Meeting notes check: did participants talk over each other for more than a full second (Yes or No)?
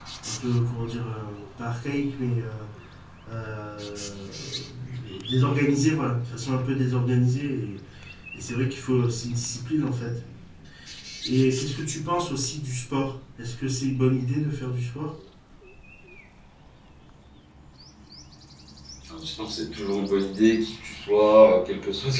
No